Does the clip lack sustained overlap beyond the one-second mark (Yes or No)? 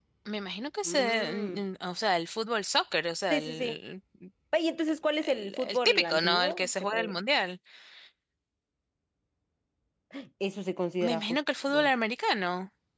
No